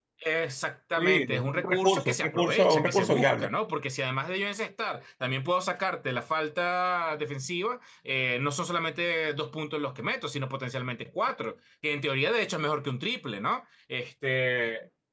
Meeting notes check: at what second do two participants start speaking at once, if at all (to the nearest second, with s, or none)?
1 s